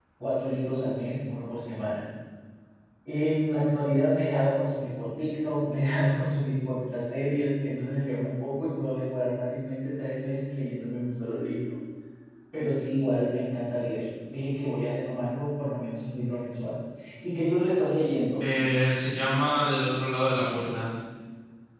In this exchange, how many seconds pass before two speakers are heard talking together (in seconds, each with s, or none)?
none